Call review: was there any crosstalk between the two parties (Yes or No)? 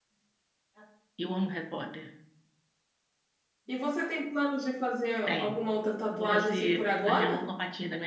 Yes